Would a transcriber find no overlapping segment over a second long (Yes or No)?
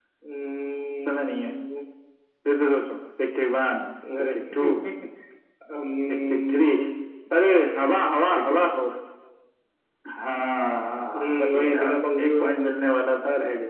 No